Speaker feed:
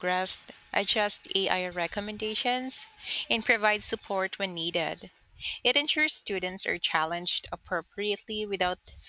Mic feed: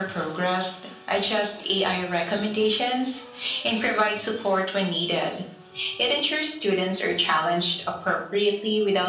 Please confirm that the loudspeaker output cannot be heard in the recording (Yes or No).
No